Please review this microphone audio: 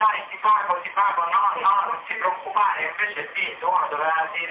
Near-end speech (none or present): present